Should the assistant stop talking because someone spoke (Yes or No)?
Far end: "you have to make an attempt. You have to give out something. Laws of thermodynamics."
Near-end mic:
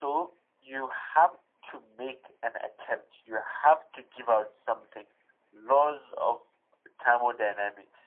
No